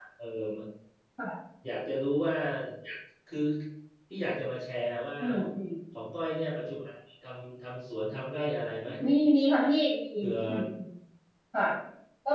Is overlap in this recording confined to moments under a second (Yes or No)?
Yes